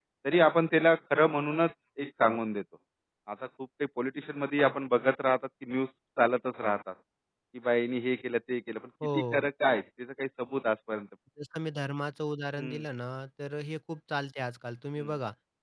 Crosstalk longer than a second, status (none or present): none